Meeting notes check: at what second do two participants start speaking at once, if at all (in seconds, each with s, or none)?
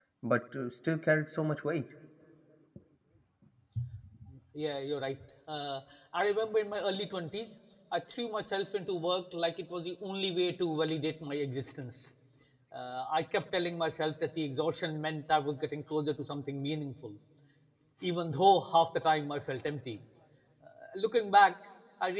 none